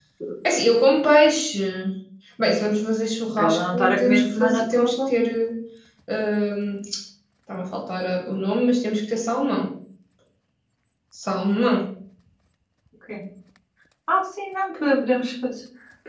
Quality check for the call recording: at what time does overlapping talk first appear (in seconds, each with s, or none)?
3.4 s